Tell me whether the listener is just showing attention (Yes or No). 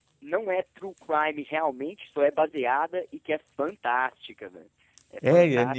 No